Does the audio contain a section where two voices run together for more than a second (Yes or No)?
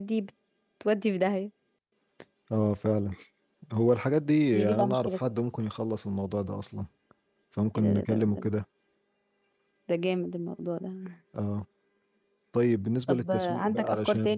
Yes